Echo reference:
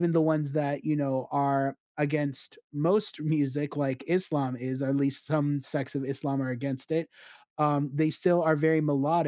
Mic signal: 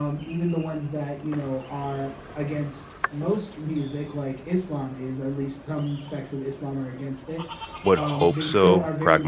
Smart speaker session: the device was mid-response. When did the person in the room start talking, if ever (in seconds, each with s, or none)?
7.8 s